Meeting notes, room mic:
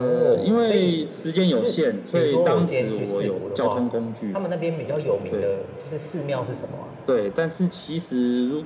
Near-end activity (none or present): present